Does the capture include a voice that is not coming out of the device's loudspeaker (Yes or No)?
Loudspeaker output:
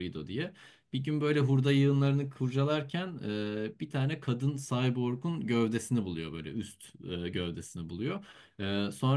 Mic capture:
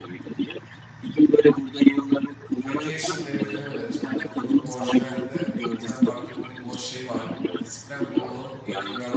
Yes